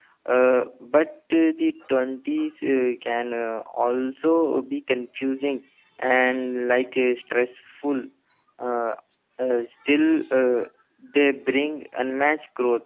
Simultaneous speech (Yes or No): No